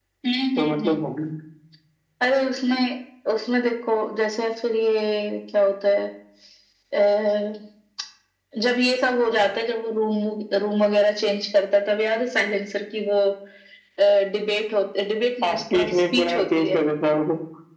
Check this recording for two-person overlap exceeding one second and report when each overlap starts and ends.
15.4-16.8

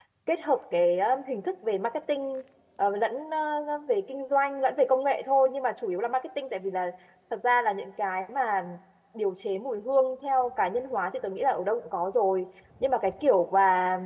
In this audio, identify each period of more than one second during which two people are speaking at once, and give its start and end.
none

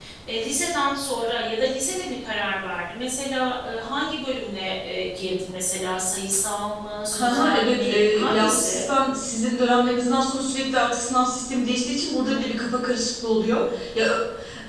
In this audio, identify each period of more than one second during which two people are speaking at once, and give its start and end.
7.1-8.8

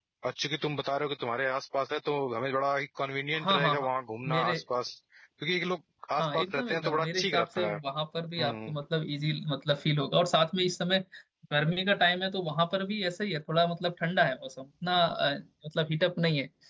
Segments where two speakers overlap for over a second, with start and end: 6.2-7.8

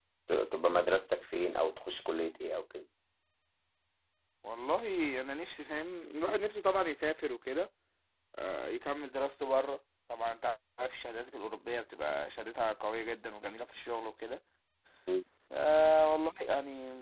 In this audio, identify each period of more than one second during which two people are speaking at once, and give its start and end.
none

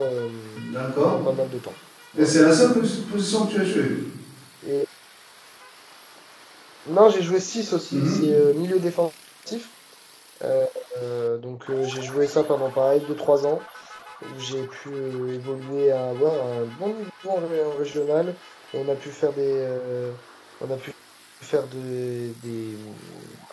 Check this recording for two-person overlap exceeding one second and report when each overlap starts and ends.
none

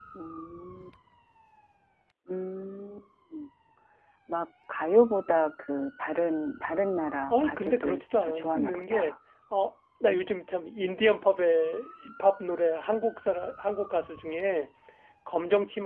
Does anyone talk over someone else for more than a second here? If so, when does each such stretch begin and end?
7.3-9.1

